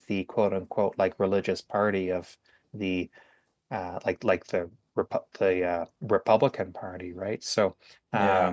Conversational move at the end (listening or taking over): listening